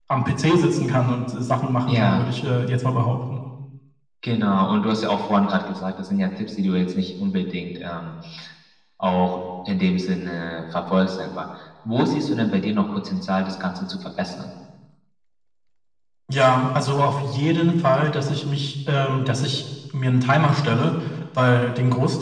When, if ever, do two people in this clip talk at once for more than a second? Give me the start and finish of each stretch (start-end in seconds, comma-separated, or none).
none